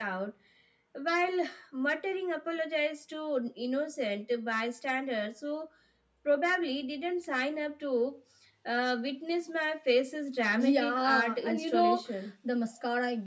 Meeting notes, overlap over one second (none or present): present